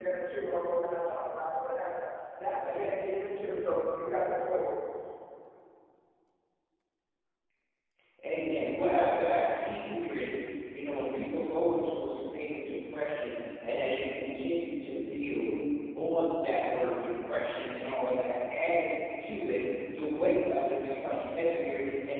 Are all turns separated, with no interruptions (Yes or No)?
Yes